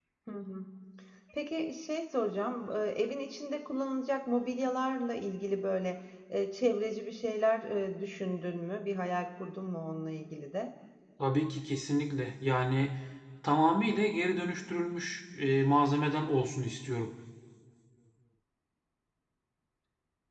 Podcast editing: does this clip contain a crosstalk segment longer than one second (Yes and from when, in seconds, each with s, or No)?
No